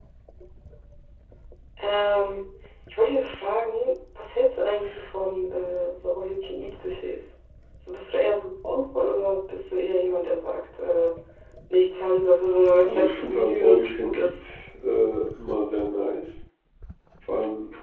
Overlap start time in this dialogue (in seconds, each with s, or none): 12.8 s